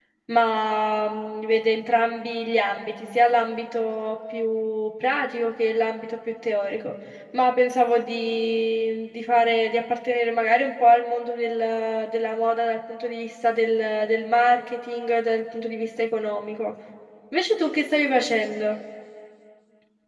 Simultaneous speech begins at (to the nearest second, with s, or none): none